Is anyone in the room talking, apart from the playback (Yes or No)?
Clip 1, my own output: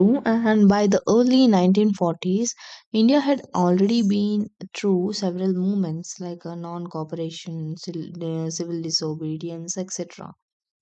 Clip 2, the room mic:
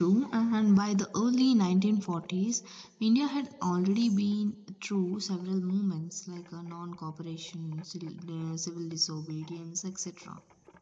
No